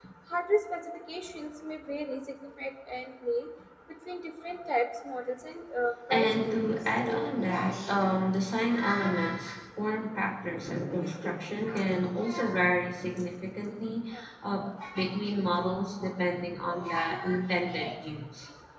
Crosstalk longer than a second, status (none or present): present